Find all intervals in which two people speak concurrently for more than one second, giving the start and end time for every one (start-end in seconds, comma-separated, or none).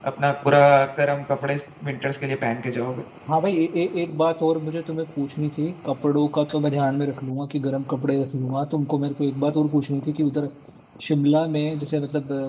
none